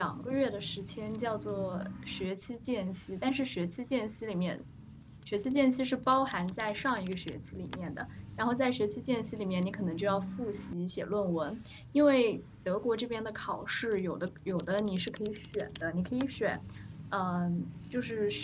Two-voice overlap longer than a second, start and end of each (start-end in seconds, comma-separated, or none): none